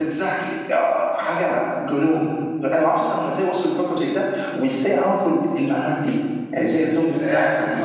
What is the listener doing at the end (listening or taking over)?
taking over